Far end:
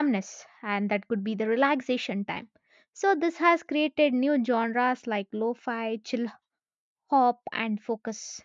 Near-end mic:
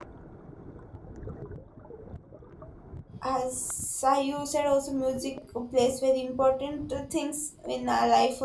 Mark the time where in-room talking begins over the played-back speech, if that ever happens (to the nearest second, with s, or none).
3 s